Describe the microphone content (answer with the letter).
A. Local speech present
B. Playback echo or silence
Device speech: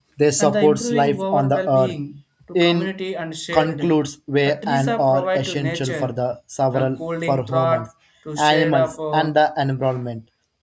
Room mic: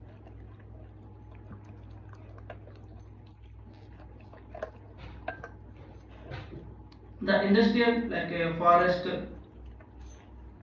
A